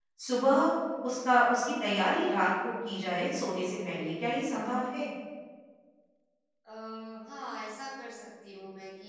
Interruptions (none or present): none